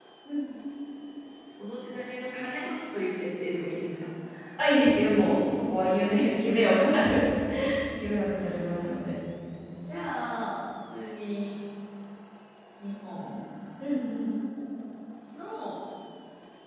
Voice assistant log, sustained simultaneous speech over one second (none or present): none